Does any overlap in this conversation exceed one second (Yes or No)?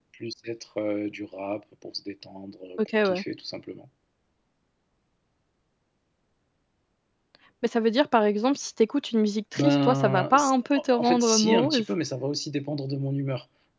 Yes